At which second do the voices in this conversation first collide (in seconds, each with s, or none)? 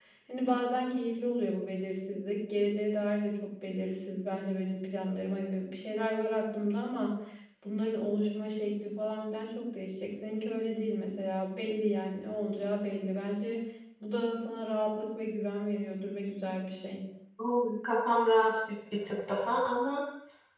none